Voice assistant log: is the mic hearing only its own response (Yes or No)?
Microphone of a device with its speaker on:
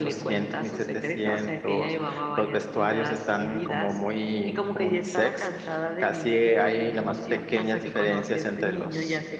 Yes